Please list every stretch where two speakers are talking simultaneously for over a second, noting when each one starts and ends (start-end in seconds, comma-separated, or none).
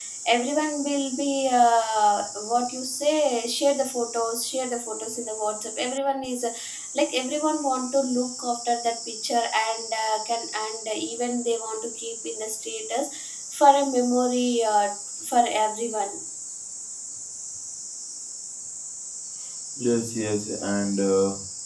none